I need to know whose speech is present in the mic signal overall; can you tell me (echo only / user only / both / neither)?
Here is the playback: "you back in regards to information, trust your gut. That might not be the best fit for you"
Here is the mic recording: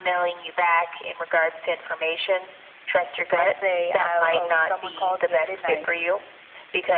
both